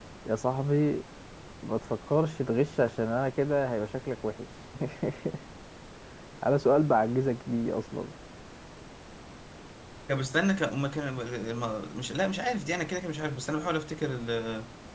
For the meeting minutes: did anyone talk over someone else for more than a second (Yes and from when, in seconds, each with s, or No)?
No